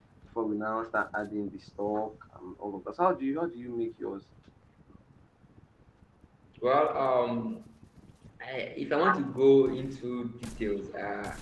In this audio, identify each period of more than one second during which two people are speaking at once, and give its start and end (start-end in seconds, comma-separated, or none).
none